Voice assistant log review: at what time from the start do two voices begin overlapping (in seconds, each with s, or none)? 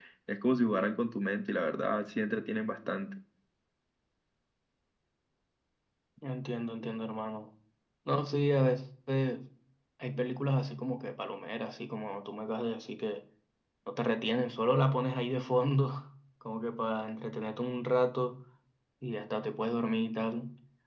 none